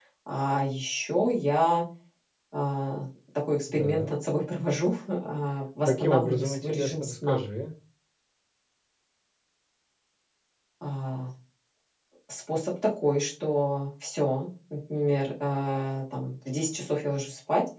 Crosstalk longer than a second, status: present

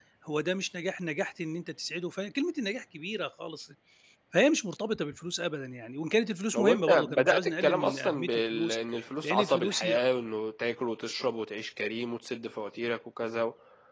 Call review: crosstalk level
present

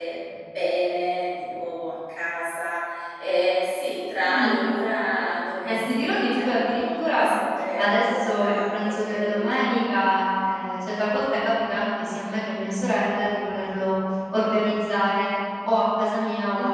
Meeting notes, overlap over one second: present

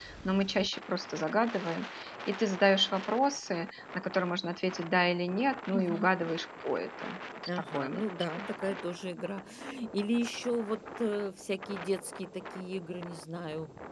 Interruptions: present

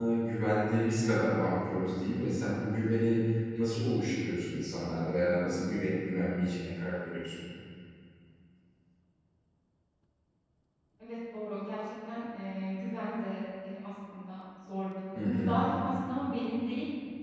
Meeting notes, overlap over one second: none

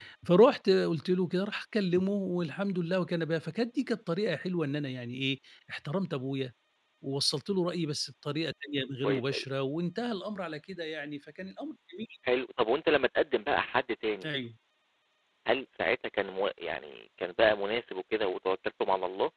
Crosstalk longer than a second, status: none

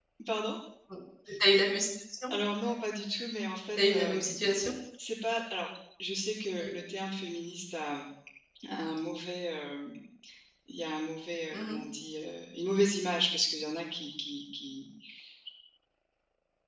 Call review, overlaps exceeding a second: none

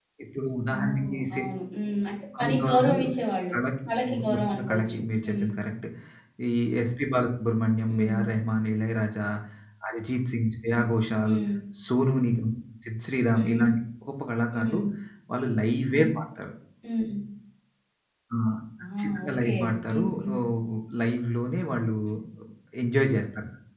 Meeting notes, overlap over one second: present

